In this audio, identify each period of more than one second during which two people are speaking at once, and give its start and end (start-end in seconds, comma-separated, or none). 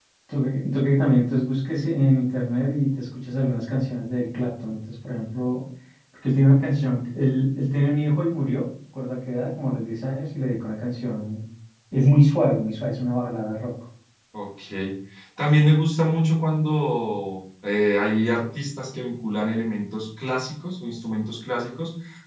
none